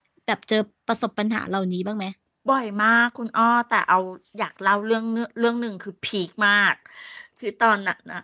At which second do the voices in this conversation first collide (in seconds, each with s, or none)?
none